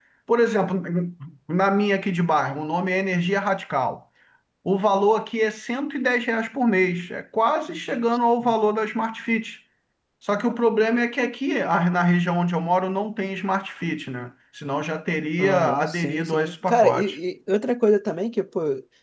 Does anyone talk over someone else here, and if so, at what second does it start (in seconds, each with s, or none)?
15.4 s